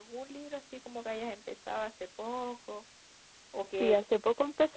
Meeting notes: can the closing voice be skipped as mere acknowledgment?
No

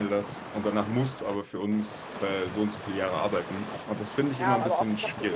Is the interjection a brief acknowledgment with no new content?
No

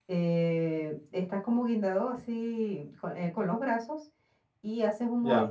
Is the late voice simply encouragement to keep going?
Yes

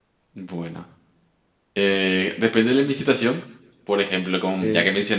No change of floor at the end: Yes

